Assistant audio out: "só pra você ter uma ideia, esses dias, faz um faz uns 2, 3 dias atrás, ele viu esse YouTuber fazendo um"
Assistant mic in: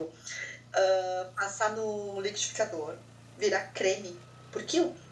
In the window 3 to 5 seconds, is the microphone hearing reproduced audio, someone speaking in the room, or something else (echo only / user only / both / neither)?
user only